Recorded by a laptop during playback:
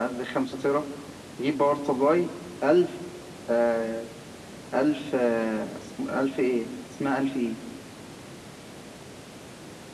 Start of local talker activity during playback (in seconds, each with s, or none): none